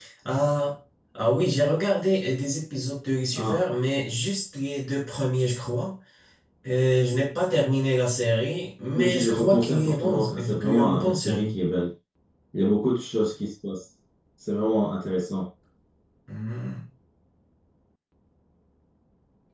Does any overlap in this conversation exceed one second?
Yes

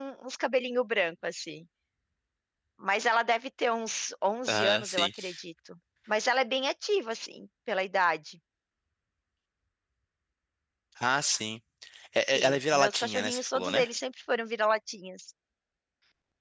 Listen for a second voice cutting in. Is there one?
Yes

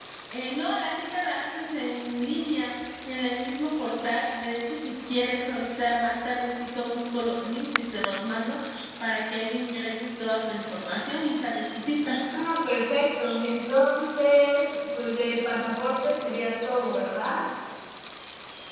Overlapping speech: No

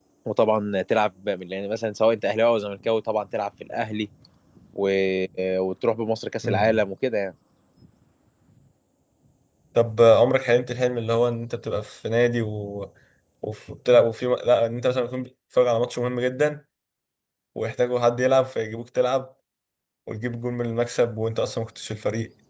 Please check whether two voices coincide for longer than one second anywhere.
No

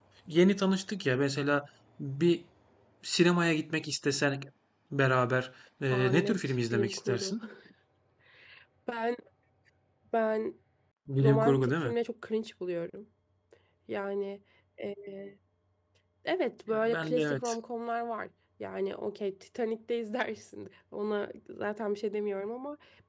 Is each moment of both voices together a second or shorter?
No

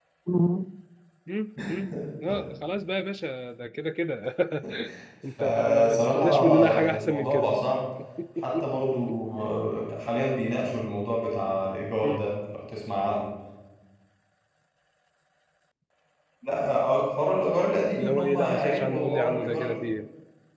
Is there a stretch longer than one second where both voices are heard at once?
Yes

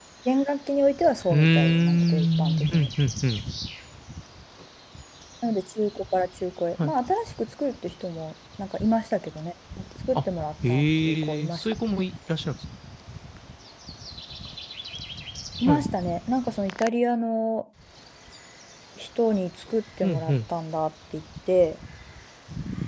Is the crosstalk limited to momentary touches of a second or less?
No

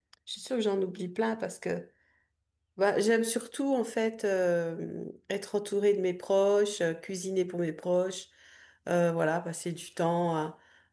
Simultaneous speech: No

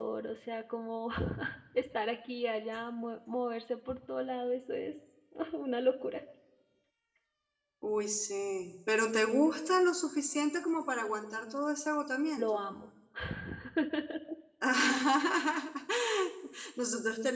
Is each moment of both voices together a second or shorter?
Yes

